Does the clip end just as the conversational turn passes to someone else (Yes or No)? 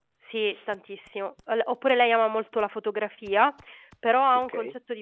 No